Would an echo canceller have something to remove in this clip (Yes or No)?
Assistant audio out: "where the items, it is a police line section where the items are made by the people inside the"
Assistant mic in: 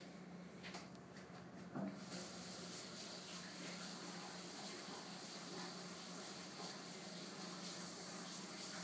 No